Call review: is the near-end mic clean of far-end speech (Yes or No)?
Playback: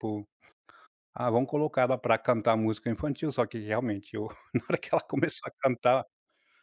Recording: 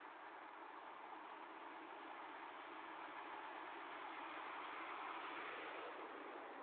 Yes